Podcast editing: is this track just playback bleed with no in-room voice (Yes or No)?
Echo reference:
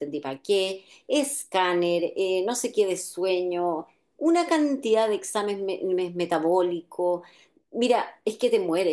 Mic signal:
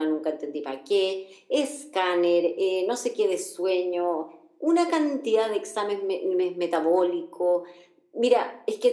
Yes